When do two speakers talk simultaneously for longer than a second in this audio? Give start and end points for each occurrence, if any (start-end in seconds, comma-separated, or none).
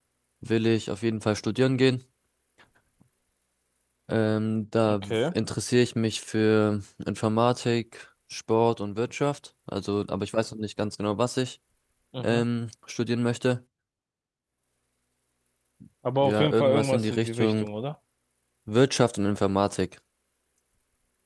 16.2-17.7